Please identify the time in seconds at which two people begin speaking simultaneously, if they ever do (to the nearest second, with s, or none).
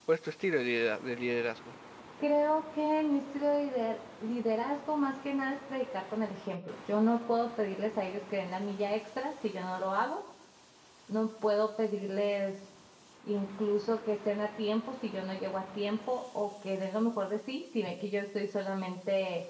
none